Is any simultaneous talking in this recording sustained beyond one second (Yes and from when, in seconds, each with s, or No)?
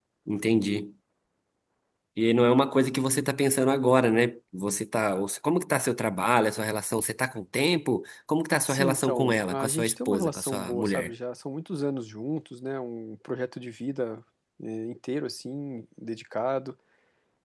Yes, from 8.6 s